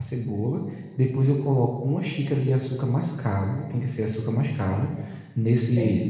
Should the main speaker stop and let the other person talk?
No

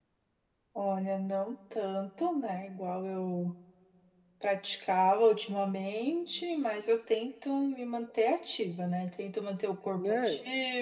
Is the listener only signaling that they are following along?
Yes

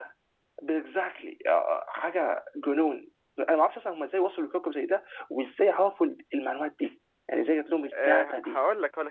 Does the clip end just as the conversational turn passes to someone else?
Yes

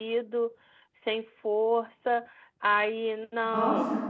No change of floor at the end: Yes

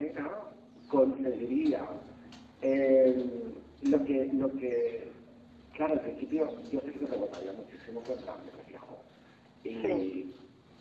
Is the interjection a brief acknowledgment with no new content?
Yes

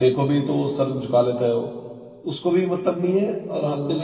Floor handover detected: No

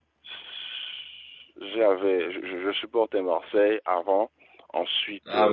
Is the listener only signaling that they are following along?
No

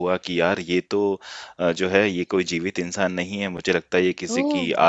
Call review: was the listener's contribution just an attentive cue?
Yes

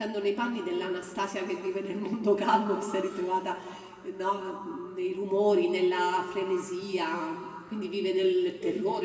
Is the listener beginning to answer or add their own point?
Yes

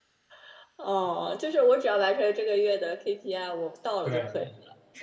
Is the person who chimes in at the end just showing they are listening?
No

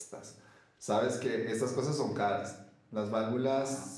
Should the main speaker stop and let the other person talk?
No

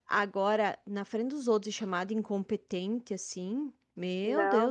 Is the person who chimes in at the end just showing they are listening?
No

